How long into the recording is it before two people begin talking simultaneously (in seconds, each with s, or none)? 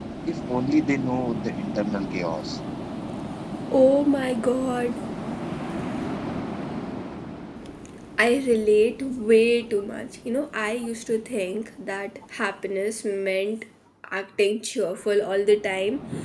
none